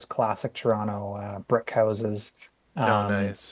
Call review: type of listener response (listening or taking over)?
listening